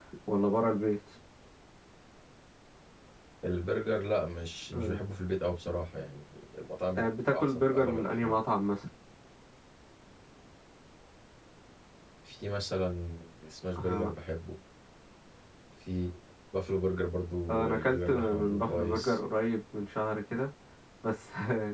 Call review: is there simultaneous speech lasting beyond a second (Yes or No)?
Yes